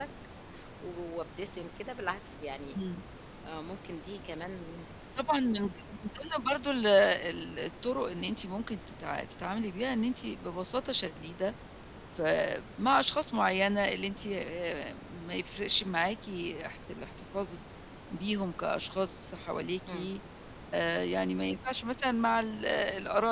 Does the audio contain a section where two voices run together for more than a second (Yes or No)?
No